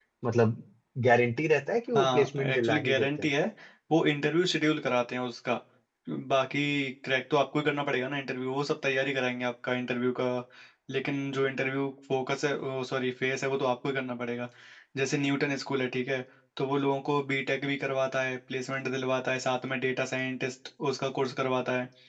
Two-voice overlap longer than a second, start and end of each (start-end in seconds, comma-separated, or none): 1.9-3.3